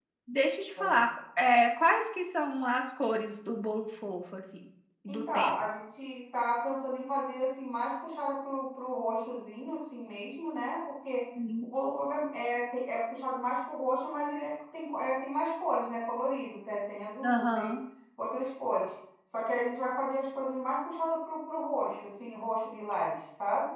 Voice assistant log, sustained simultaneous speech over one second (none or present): none